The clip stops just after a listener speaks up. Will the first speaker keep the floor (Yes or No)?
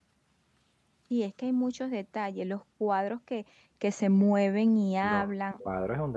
No